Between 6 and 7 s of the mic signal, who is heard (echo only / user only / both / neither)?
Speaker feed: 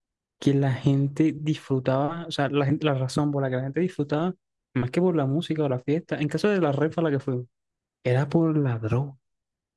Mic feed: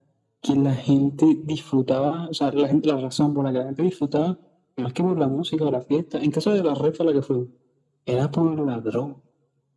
echo only